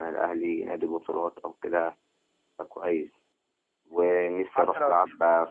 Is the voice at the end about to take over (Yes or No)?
No